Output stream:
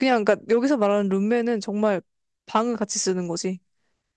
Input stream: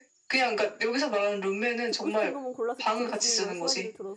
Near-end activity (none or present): present